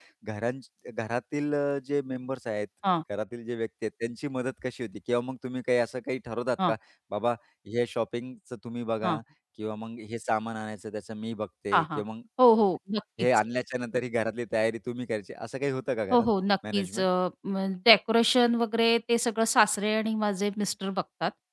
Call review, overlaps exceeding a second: none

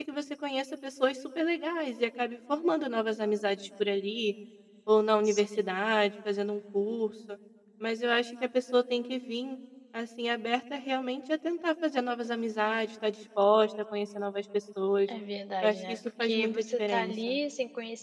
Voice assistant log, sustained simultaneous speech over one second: present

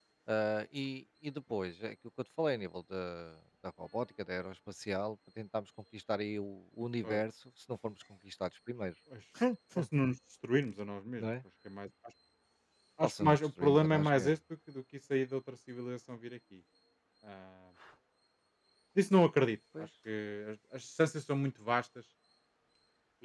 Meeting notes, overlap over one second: present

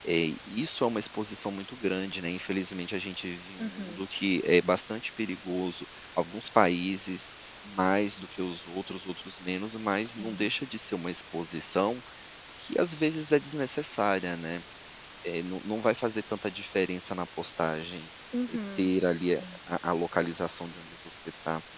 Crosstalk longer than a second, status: none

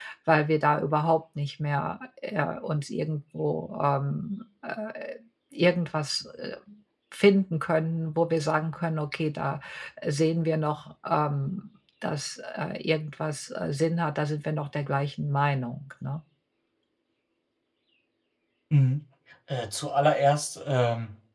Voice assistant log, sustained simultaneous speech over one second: none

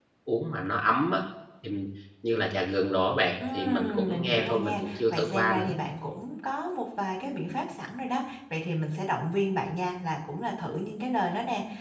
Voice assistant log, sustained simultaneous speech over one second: present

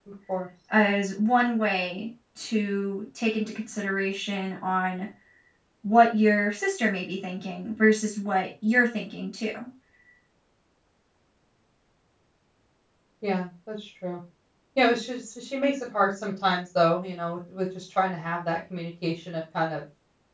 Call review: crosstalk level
none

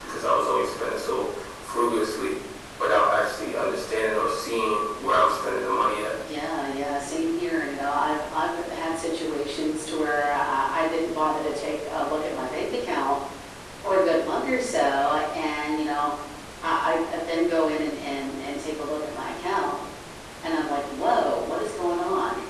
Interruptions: none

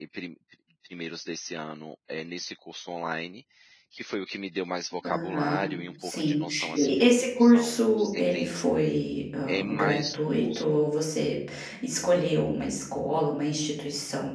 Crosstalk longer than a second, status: present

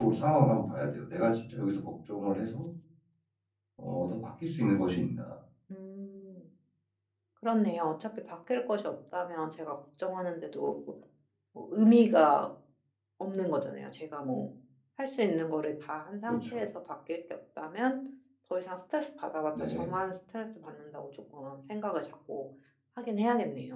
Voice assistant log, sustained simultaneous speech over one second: none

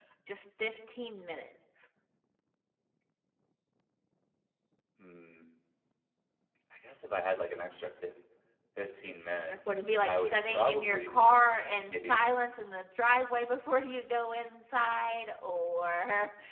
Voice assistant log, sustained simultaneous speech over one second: present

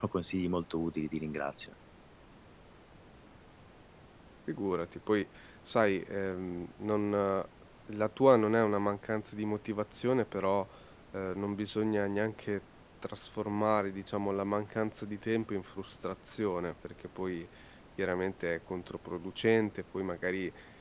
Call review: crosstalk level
none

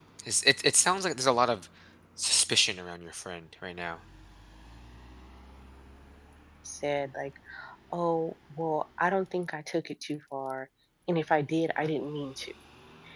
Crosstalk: none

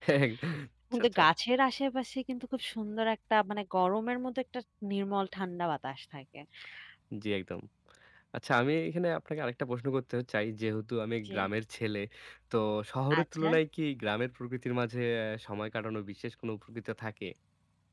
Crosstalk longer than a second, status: none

